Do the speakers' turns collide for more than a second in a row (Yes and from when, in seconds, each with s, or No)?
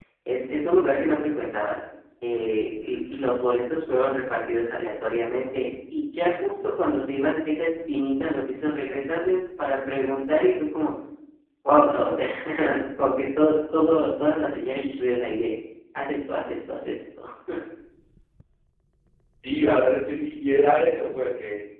No